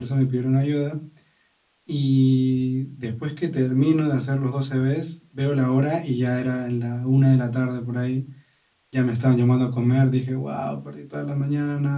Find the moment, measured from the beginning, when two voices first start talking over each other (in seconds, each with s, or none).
none